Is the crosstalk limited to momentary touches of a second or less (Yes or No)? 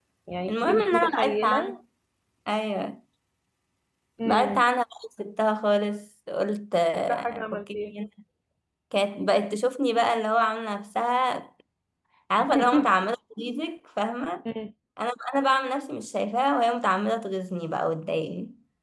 No